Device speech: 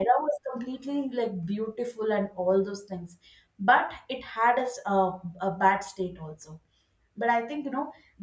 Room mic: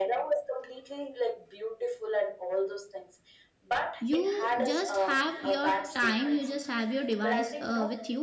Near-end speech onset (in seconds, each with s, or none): 4.0 s